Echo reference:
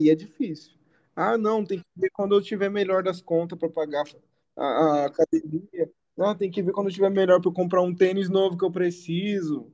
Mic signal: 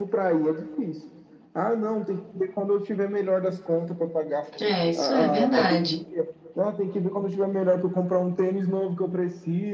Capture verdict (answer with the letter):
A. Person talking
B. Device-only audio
A